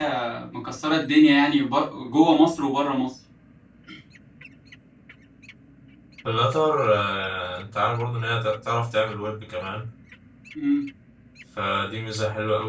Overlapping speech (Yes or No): No